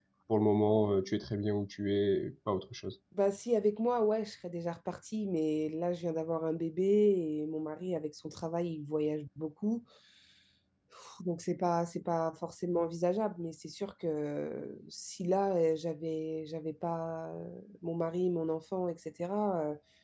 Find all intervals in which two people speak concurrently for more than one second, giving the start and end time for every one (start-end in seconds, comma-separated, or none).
none